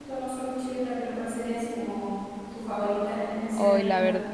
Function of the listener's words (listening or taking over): taking over